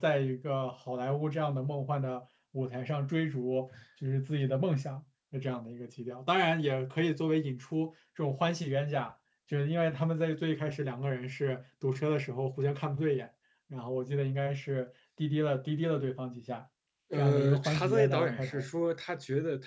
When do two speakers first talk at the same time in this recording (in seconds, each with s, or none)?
17.1 s